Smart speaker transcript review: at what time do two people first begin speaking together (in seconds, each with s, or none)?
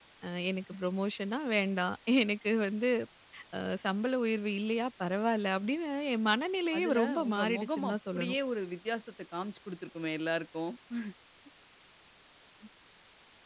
6.7 s